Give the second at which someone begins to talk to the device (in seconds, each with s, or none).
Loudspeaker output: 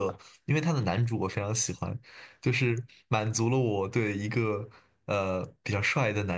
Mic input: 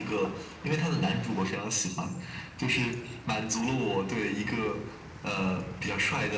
none